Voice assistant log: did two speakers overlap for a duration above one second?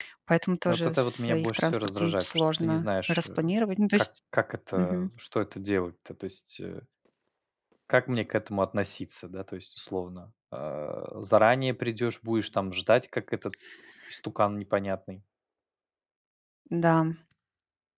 Yes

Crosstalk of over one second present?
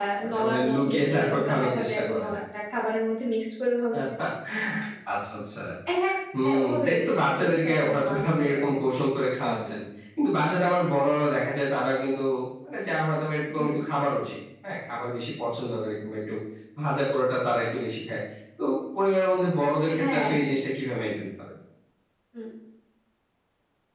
Yes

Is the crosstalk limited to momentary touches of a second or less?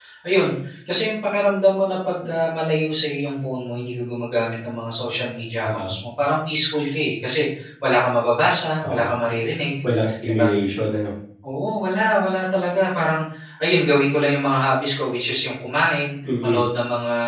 Yes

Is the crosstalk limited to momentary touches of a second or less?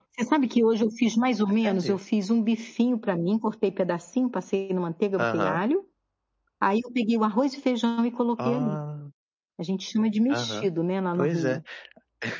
Yes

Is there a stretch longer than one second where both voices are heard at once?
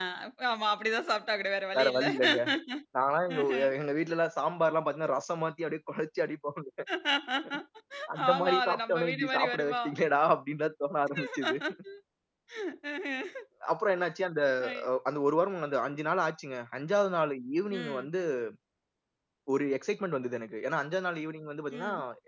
Yes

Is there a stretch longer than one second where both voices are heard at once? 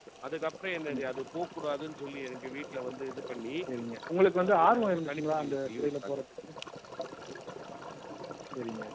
Yes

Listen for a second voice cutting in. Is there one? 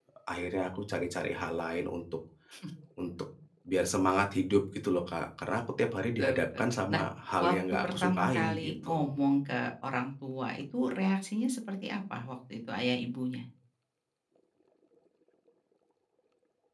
Yes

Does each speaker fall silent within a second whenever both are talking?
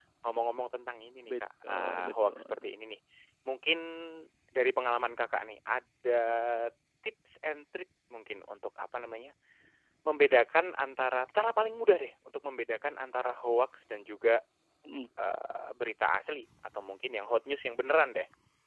No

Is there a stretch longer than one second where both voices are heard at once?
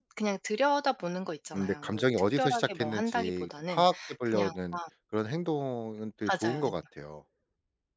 Yes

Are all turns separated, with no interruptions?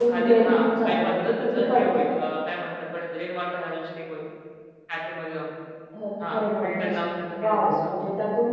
No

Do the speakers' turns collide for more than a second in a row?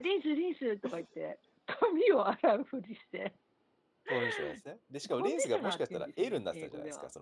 Yes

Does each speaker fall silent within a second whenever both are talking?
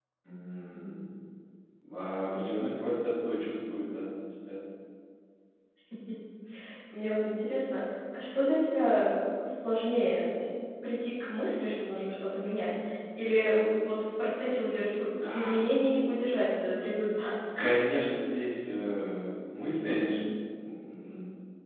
Yes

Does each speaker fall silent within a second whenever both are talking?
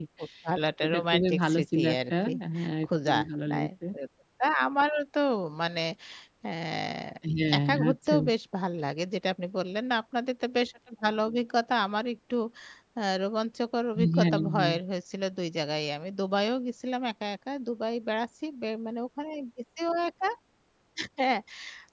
No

